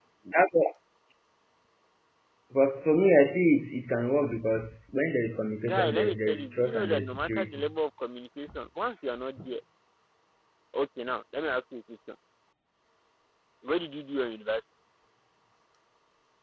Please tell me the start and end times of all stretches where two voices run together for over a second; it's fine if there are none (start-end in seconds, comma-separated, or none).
5.7-7.7